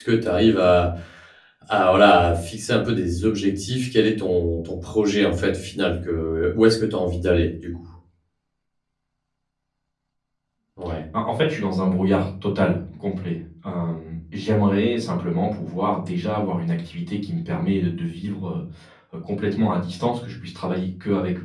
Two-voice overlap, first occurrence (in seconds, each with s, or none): none